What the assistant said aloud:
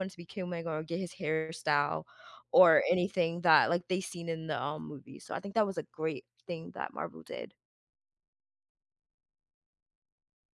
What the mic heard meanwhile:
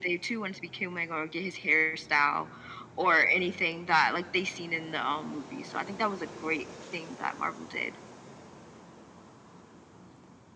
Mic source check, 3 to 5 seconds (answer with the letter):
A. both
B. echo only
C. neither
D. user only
B